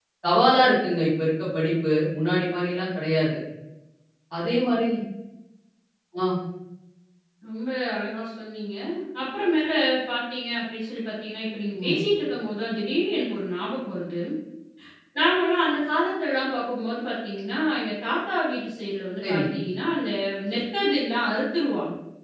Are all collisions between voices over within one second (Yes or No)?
Yes